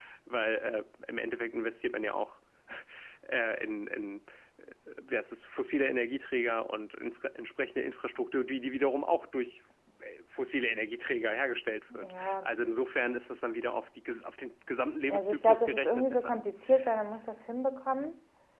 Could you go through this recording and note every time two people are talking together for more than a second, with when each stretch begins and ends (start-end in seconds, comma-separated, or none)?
15.1-16.4